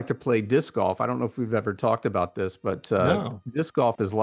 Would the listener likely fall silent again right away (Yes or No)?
Yes